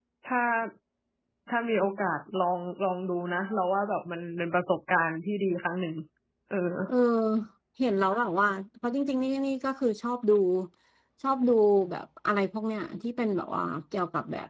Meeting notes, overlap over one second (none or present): none